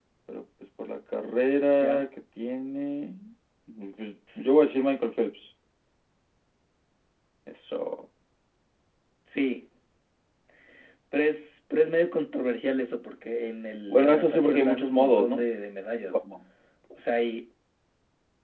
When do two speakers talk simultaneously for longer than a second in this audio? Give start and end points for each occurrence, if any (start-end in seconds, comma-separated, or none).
13.9-15.4